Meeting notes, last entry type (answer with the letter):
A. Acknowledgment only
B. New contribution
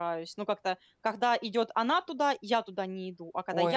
B